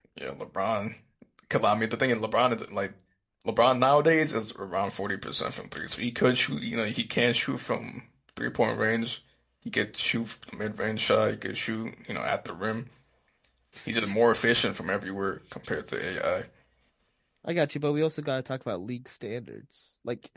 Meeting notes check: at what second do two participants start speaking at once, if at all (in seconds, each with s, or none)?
none